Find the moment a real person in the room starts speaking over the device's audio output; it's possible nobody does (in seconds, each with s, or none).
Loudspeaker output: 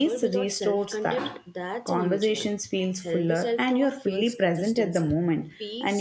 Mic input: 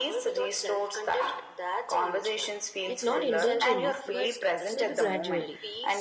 2.8 s